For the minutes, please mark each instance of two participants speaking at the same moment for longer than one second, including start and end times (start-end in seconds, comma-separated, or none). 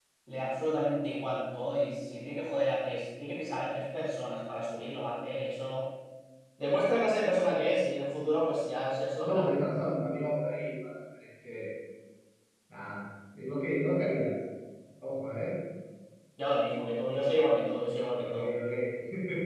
none